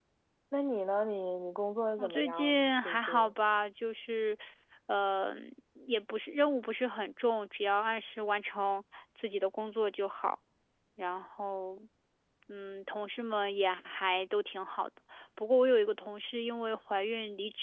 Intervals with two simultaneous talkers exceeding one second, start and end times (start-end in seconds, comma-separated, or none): 2.0-3.3